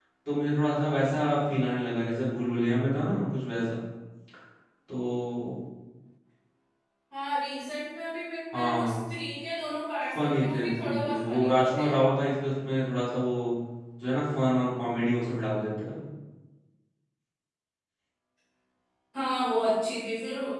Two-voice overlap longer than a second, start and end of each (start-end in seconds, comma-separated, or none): 10.2-11.9